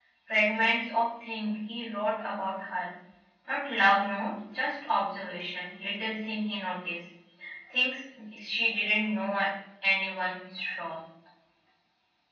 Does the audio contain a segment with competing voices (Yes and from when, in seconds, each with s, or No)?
No